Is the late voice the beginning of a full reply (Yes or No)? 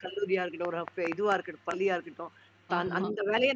No